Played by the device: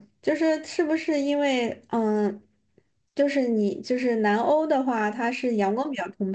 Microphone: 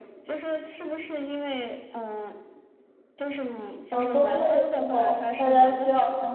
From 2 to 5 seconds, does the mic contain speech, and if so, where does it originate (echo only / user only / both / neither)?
both